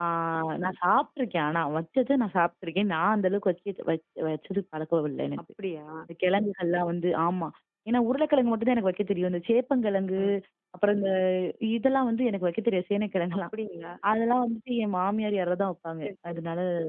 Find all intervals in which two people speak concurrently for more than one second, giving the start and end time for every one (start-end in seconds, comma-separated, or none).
none